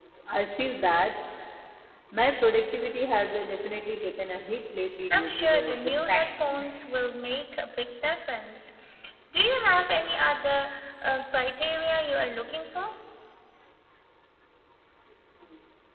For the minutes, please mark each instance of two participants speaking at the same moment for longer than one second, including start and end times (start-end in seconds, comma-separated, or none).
5.1-6.7